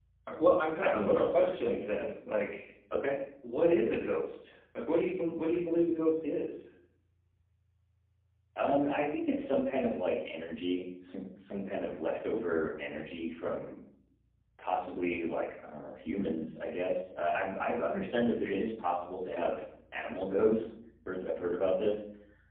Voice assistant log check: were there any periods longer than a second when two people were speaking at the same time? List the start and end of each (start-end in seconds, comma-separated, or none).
0.8-2.1